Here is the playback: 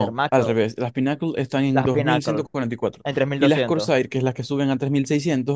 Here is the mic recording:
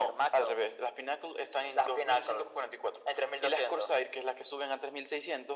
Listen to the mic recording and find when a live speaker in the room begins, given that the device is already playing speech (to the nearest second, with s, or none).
none